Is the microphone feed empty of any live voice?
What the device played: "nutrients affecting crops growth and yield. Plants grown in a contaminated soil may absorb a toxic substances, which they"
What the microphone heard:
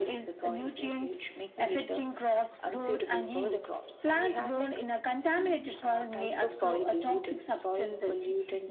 No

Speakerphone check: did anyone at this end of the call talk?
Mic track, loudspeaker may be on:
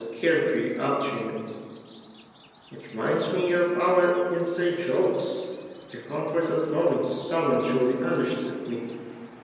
No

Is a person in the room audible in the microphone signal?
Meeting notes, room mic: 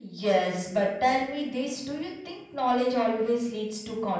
No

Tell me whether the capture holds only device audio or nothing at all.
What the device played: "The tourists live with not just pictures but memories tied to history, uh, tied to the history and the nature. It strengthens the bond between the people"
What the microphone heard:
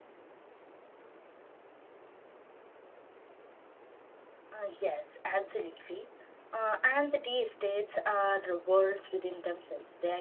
No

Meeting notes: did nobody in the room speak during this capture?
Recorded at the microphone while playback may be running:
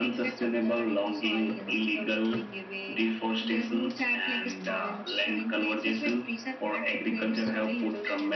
Yes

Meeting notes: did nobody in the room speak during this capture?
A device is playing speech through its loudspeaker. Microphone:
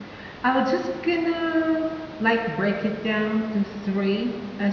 No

